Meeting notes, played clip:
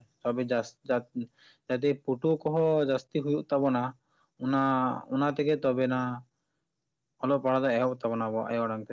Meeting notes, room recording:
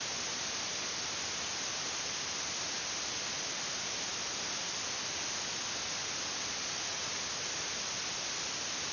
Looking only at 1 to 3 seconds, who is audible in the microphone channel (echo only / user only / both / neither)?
neither